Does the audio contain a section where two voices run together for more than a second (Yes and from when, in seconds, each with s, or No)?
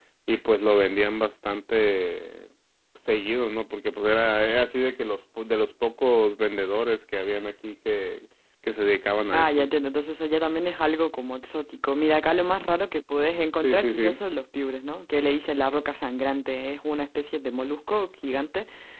No